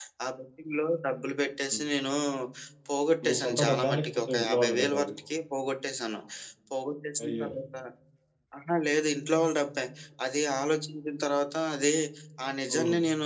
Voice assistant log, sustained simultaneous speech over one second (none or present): present